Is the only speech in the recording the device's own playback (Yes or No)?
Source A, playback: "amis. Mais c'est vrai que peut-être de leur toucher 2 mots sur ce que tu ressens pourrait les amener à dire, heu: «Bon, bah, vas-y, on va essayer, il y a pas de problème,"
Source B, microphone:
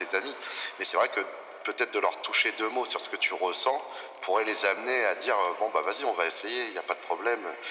Yes